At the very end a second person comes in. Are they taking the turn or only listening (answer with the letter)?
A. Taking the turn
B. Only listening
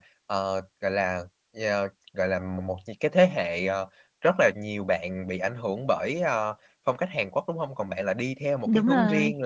B